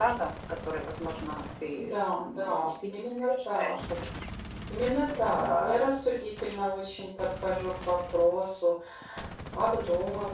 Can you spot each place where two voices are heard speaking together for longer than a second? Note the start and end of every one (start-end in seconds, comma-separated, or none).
1.9-3.7